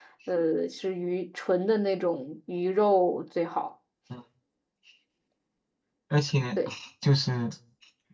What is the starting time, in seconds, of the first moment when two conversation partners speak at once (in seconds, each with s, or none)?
none